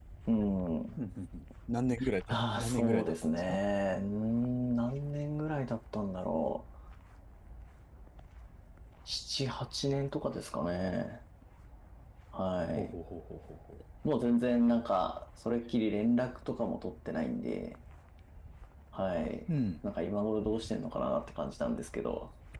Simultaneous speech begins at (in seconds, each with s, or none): 2.3 s